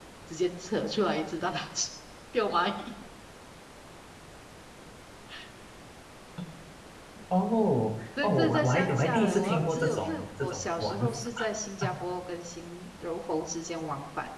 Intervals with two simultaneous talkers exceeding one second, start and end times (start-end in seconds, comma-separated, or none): 8.2-11.3